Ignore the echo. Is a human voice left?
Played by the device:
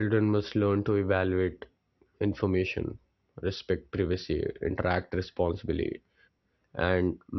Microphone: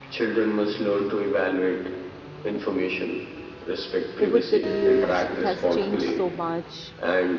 Yes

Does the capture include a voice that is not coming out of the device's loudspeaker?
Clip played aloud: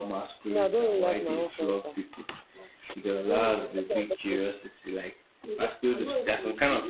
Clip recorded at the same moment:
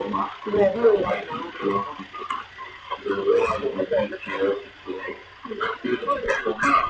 No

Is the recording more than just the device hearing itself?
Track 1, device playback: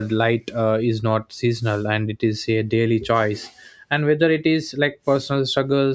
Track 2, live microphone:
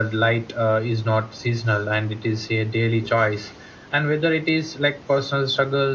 No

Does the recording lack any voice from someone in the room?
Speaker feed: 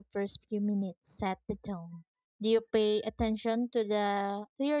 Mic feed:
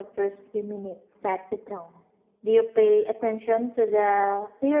Yes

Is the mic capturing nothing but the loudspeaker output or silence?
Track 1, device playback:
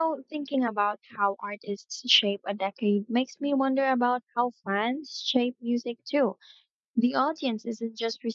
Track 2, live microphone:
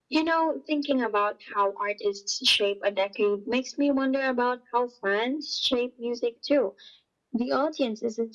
Yes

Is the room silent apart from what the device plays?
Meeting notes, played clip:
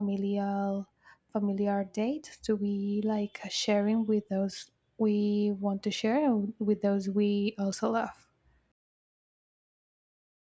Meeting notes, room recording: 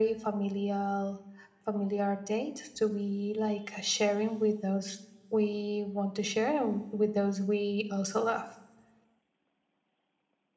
Yes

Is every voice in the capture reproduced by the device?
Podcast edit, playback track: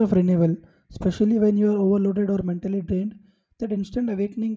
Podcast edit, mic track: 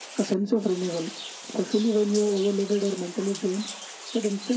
Yes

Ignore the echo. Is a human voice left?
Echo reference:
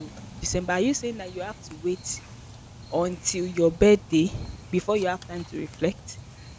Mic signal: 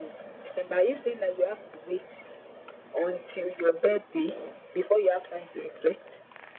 No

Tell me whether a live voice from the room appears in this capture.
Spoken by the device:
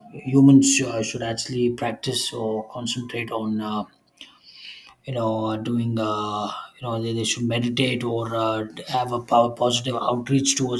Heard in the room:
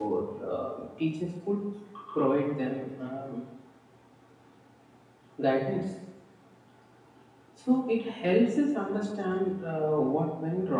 Yes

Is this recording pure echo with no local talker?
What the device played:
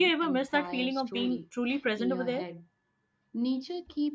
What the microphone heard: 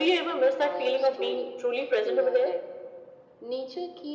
Yes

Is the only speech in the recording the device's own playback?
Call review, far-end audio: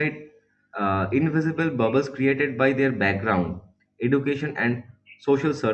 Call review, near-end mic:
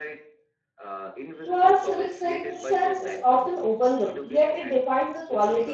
No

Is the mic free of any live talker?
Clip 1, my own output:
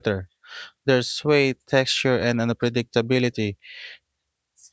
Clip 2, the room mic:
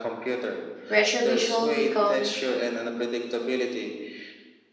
No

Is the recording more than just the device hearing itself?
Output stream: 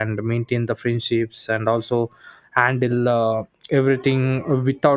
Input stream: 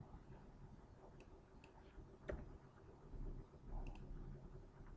No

